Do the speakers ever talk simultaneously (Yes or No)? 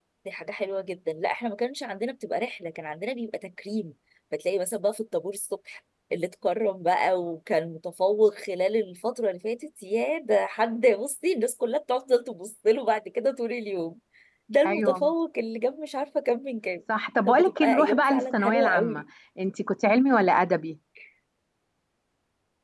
Yes